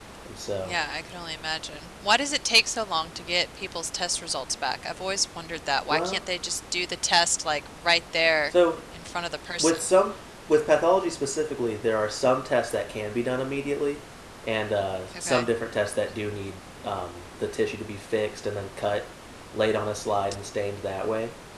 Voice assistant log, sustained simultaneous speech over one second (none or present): none